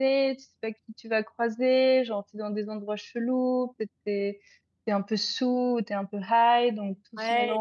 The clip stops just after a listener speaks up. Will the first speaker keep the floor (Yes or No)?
No